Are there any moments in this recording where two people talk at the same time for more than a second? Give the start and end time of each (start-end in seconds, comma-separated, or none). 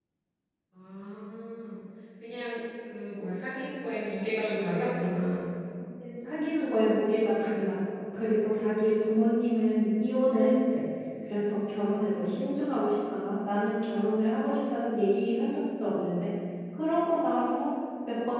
none